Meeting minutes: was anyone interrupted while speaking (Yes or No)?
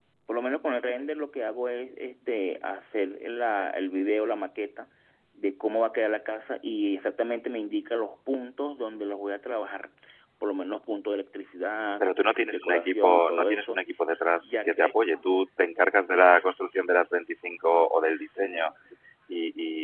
Yes